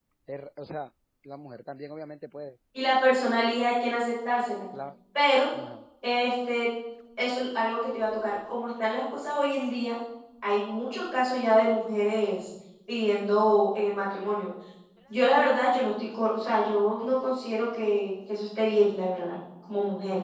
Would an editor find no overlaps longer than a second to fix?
Yes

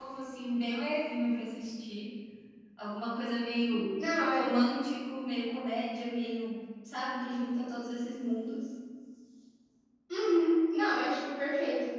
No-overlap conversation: Yes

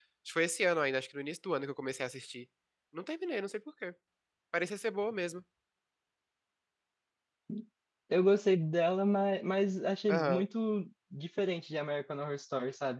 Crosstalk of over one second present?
No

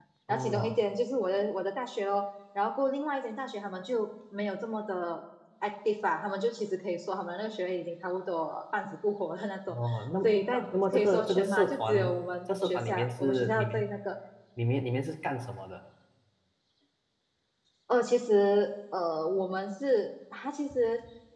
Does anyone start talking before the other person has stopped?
Yes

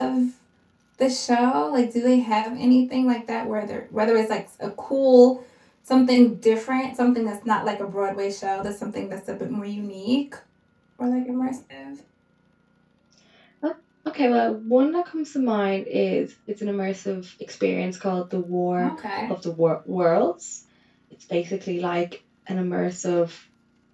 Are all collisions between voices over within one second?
Yes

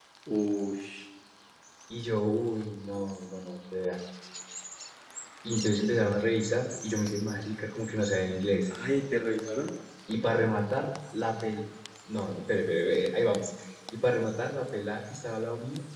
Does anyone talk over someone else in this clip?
No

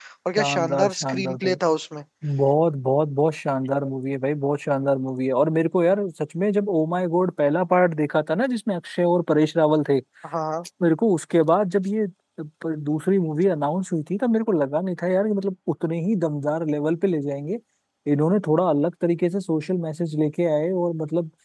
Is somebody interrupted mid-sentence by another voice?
Yes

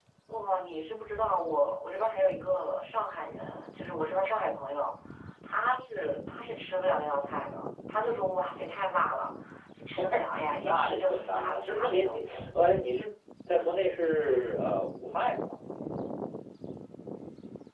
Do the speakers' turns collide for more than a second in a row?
Yes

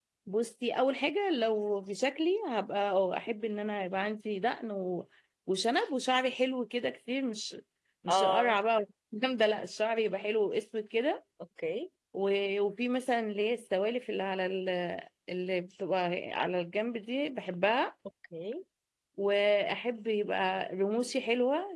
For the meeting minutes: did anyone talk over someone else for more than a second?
No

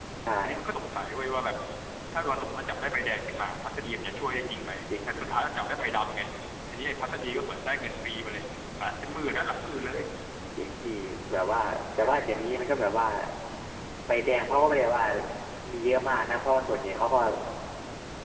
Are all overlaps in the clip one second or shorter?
Yes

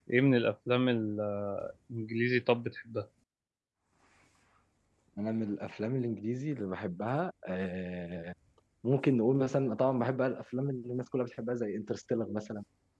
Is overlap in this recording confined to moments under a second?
Yes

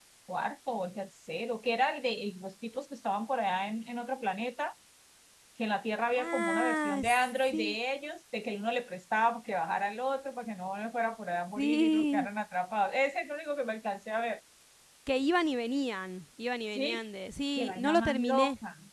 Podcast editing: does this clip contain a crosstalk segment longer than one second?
Yes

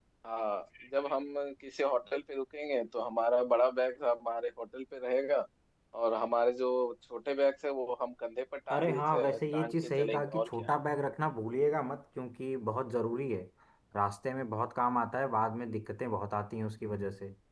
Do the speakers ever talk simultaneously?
Yes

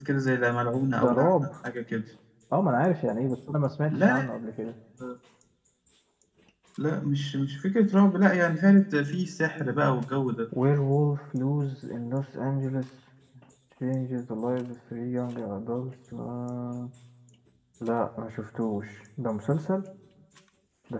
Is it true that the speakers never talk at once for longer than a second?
Yes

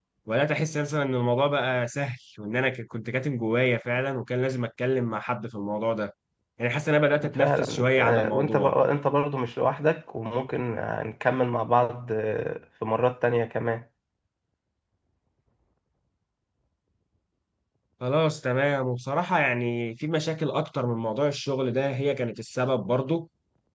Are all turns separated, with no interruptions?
No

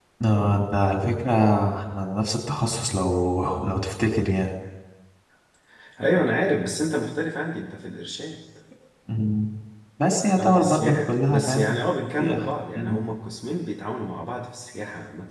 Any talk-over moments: Yes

